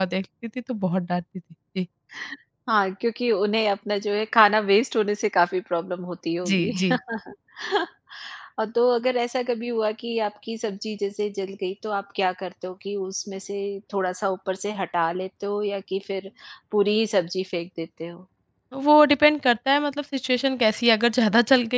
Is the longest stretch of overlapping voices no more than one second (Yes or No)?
Yes